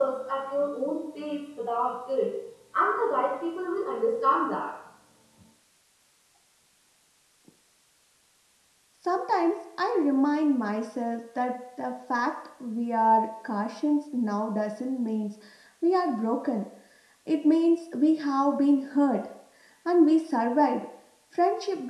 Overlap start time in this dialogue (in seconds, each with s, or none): none